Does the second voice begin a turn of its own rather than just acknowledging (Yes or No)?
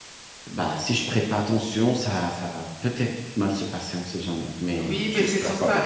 Yes